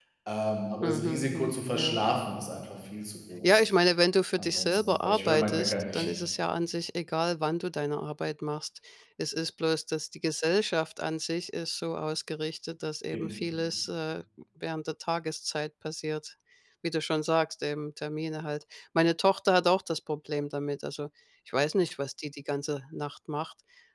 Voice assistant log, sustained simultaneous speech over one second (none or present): present